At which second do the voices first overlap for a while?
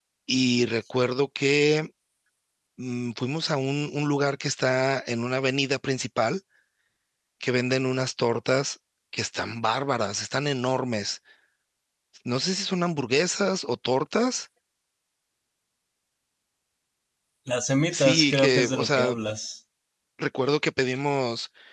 17.9 s

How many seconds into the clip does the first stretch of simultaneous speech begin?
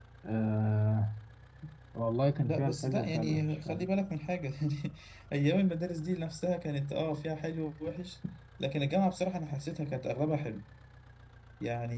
2.4 s

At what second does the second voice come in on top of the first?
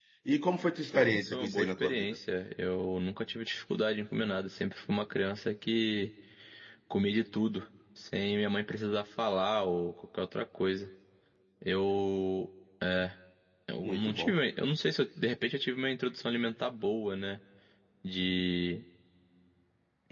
0.9 s

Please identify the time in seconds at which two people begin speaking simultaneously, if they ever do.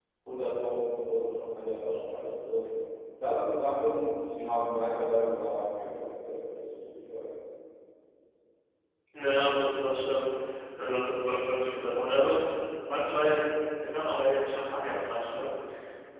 none

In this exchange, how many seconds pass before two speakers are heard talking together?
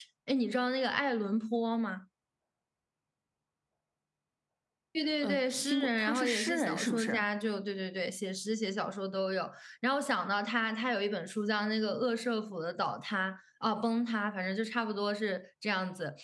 5.2 s

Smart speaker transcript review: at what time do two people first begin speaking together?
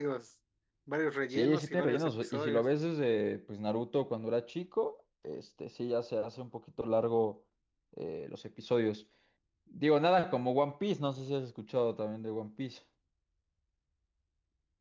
1.3 s

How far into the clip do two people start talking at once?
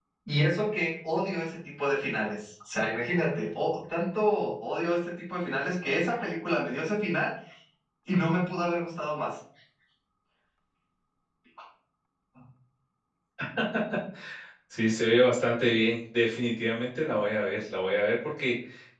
none

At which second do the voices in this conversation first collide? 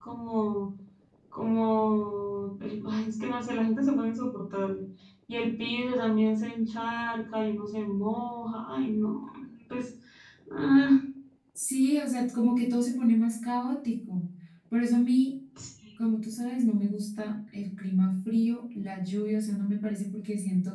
none

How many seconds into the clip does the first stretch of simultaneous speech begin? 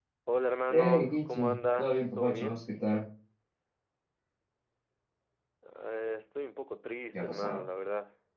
0.7 s

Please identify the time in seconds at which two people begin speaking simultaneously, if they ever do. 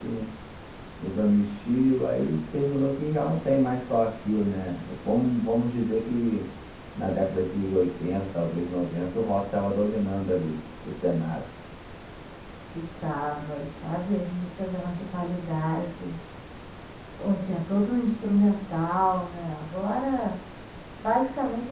none

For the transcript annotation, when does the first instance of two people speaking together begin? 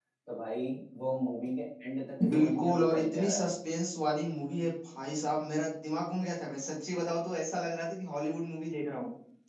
2.2 s

